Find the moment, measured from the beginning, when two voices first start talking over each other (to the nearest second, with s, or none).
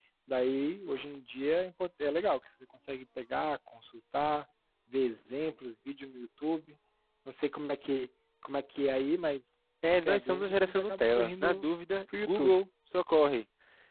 10 s